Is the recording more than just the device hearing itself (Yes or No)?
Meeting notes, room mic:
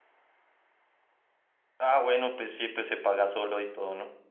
Yes